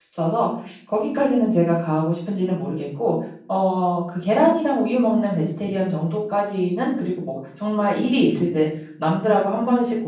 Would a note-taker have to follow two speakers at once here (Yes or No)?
No